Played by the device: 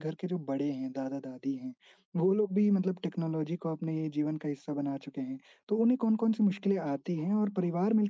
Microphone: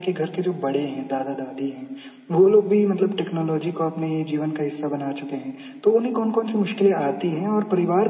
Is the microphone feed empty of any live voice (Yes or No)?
Yes